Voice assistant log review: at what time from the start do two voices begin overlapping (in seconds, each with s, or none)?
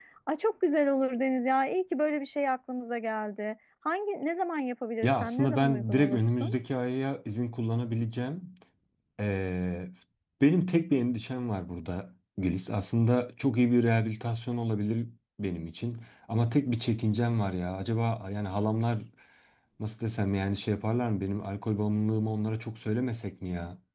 5.0 s